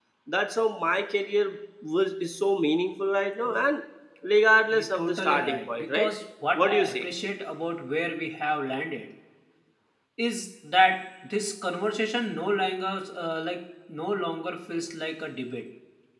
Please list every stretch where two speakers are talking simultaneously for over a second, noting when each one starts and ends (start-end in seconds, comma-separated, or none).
4.7-6.1